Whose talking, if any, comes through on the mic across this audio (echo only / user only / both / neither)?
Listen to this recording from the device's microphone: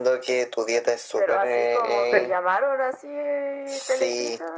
both